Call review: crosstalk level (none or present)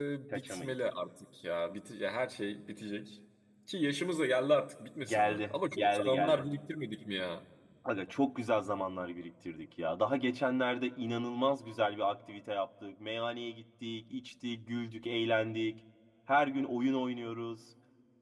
present